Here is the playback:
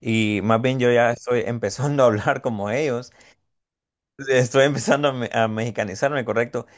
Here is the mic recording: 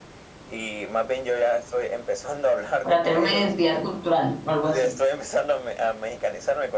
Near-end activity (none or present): present